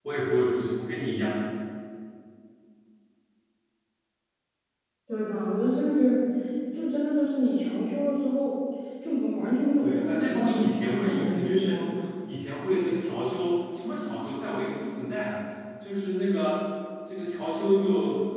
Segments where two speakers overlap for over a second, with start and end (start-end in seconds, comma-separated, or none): 9.8-11.8